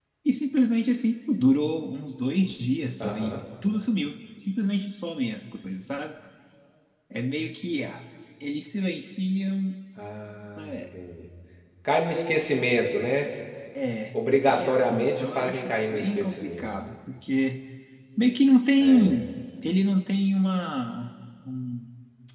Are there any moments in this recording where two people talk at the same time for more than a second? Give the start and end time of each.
14.3-16.7

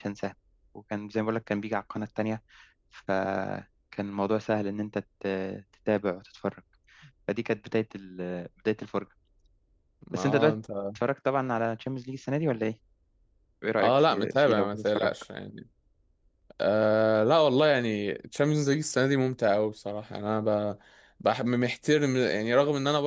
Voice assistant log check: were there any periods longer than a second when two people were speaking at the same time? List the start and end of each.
13.8-15.1

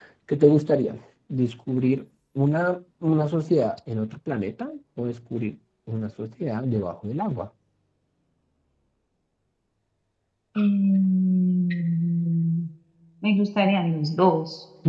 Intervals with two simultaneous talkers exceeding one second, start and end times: none

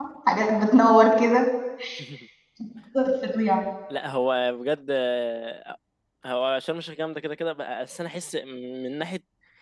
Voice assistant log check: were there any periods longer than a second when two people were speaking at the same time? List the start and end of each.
none

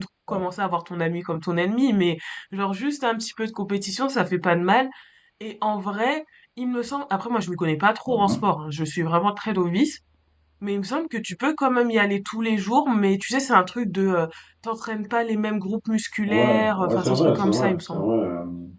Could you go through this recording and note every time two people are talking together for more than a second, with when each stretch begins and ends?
16.3-18.1

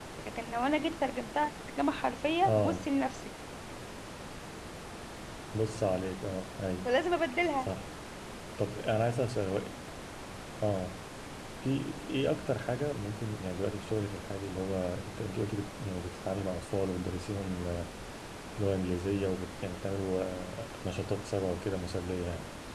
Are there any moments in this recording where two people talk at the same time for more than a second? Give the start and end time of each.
none

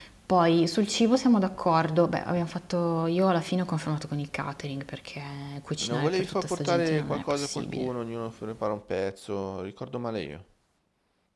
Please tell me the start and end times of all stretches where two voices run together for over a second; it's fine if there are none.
5.8-7.9

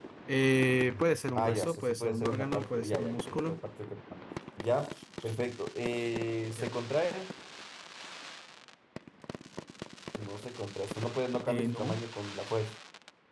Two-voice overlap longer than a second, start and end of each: 1.4-3.6

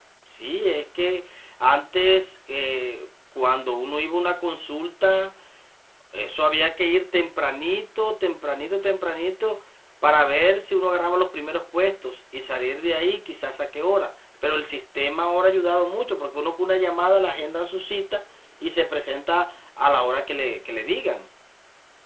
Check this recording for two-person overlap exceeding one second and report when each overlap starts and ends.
none

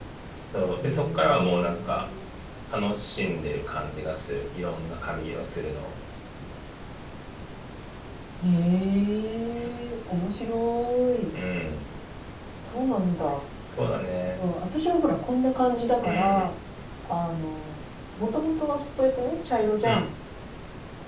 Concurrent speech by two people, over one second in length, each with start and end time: 0.8-2.0

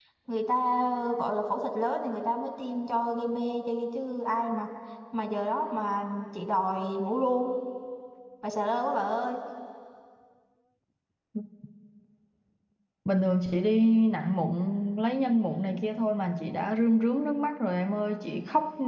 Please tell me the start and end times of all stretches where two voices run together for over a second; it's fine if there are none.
none

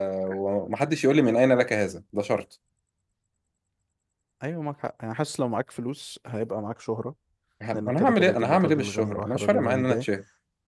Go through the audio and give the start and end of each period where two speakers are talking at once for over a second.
7.7-10.1

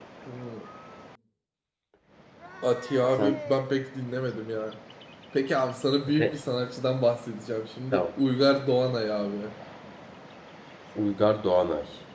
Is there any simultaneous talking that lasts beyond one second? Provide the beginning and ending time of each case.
none

